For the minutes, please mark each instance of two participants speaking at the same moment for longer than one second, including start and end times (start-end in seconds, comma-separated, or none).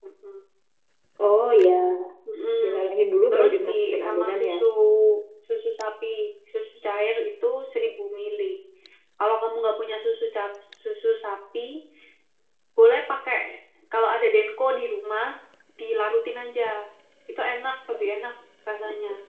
3.3-4.5